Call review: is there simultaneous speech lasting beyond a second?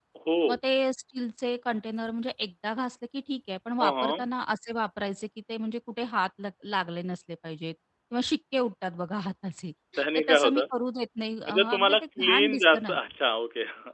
Yes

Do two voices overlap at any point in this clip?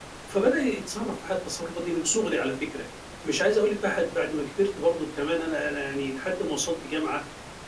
No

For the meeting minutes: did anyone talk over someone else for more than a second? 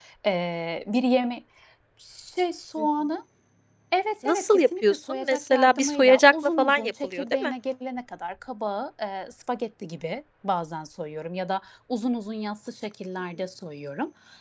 Yes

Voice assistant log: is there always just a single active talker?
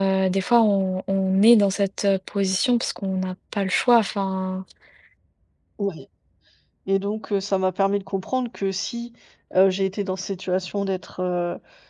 Yes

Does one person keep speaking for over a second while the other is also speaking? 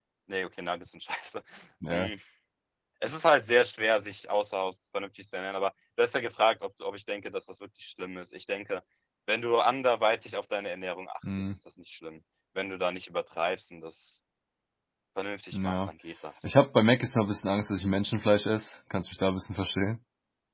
No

